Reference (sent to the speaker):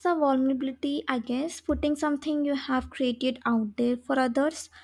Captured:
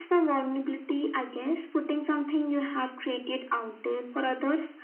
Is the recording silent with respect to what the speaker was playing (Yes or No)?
No